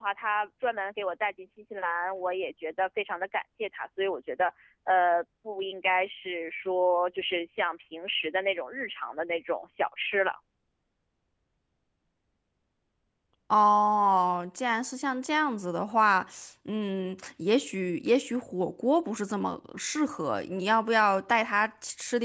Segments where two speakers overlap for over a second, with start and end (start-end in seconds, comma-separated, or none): none